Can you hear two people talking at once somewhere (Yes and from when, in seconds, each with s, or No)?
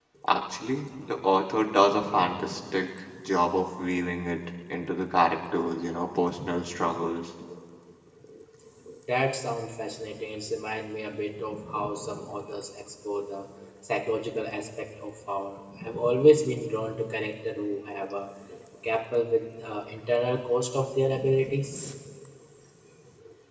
No